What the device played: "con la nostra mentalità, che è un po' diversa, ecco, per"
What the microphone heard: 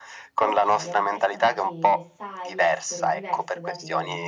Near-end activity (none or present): present